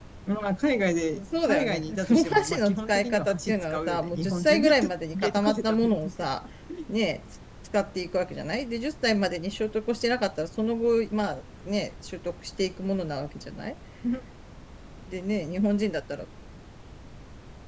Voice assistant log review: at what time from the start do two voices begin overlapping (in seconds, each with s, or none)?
1.3 s